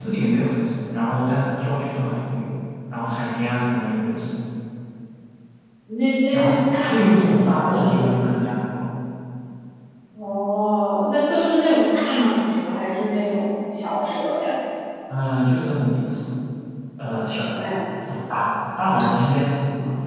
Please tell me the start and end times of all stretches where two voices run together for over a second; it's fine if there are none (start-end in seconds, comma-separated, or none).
6.3-8.2